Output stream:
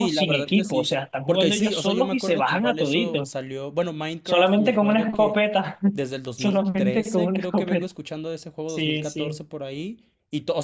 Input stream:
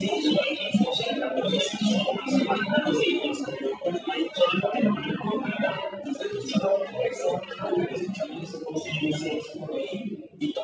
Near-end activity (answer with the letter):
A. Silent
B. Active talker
A